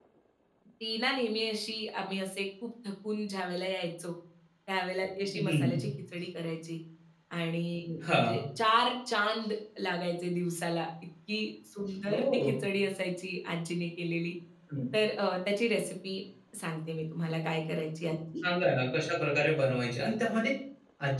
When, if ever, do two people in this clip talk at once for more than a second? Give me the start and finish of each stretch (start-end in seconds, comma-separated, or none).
none